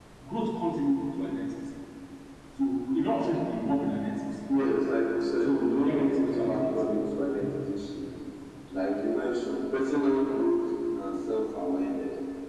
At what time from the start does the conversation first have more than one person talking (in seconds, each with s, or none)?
5.4 s